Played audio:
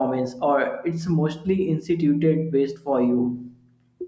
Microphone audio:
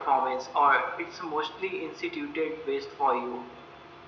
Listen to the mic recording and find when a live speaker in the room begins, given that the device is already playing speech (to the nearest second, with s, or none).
none